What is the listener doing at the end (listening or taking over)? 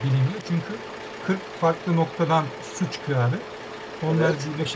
listening